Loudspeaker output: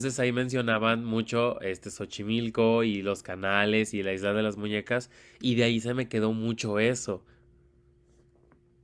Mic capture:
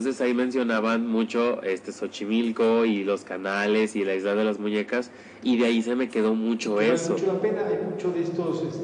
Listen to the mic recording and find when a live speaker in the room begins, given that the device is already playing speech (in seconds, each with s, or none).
6.6 s